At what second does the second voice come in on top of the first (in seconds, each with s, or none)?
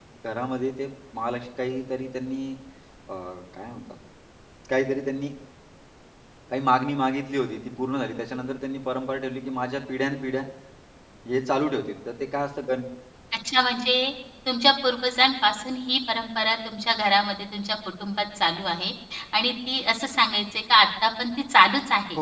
none